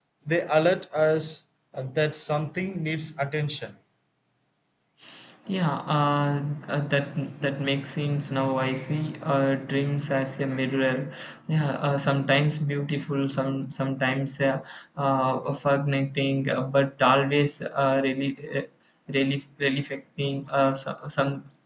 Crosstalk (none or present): none